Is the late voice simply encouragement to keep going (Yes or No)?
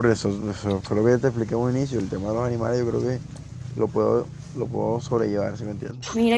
No